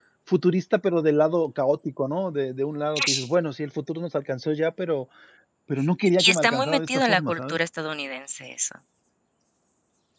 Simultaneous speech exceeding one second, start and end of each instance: 6.2-7.6

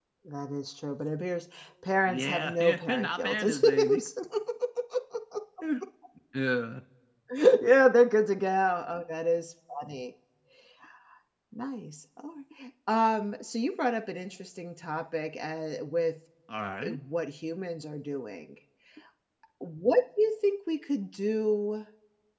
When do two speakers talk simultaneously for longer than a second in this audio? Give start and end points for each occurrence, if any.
2.1-4.0

